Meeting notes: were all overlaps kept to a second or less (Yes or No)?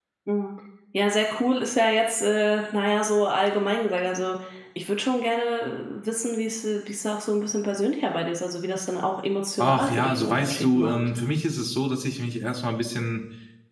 No